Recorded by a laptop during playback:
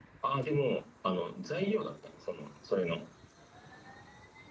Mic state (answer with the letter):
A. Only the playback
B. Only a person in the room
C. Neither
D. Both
A